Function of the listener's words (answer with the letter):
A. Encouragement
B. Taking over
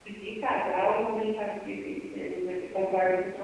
B